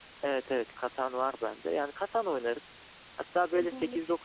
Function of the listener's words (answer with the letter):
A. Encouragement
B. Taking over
A